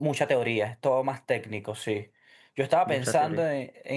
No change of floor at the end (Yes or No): Yes